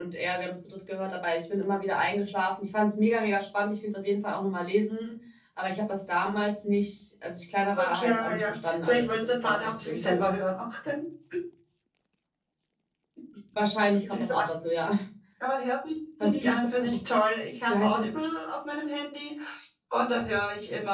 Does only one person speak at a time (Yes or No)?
No